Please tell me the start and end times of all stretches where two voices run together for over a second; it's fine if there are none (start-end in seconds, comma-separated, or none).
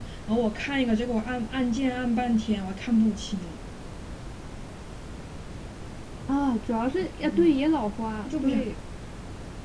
none